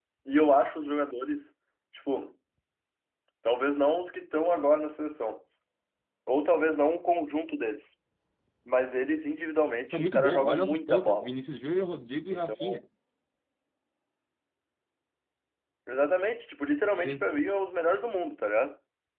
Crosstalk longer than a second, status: present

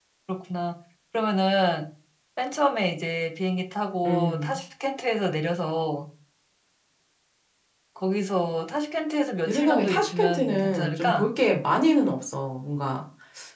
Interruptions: present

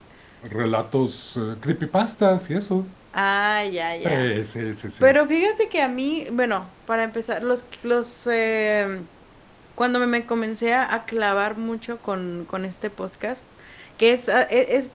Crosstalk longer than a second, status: none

